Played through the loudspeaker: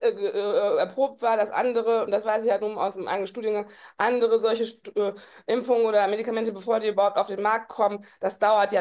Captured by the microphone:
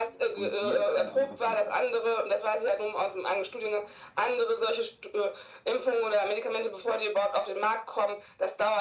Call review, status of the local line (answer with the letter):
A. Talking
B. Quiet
A